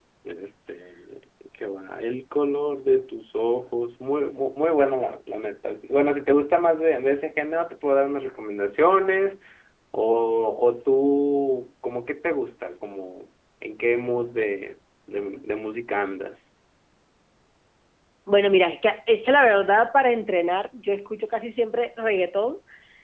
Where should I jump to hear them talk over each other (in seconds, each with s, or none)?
none